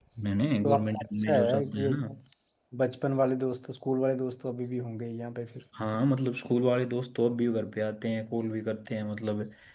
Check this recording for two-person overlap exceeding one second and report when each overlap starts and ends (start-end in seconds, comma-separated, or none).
0.6-1.9